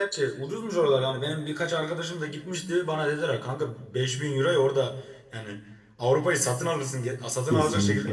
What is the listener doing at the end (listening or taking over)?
taking over